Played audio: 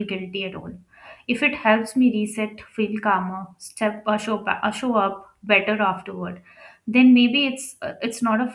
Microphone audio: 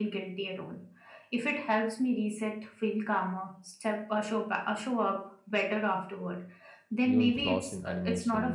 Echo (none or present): present